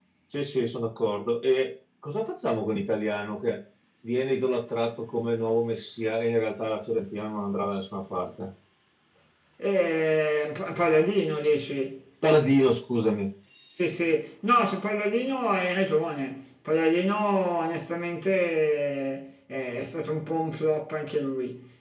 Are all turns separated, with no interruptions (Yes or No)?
Yes